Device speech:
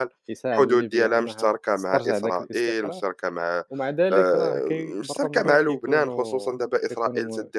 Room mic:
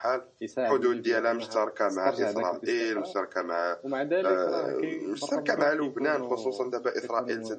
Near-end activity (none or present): none